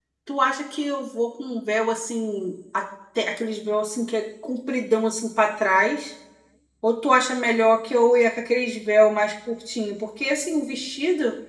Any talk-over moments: No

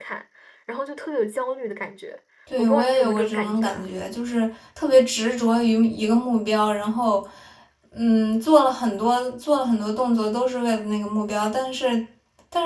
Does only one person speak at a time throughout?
No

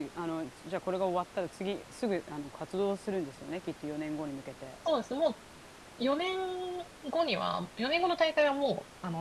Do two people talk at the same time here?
No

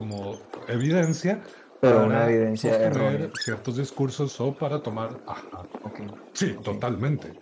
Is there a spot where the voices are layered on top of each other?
Yes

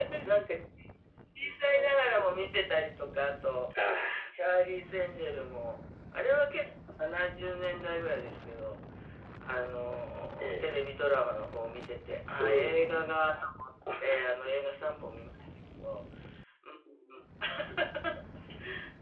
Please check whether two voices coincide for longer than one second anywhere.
No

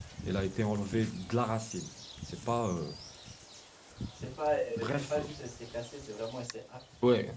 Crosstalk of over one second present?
No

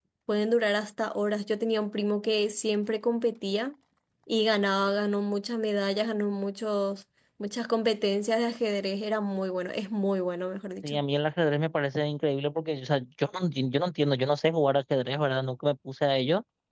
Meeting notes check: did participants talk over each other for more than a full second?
No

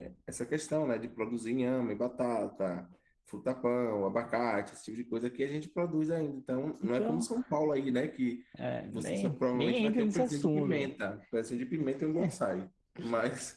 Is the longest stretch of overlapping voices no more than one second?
No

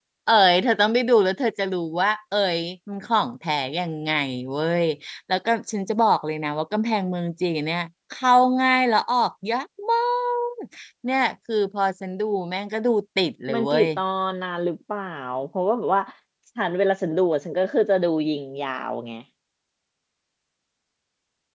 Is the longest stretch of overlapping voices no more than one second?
Yes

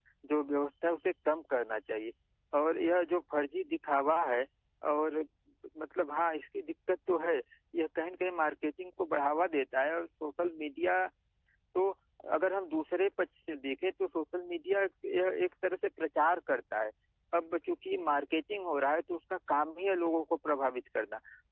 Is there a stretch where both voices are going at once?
No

